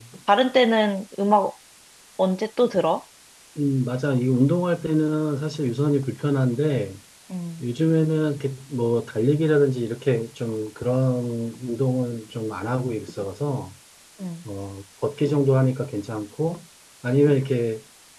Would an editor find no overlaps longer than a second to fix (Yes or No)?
Yes